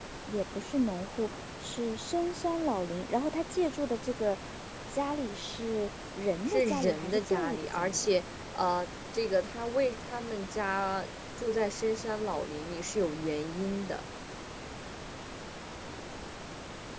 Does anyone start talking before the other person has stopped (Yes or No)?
Yes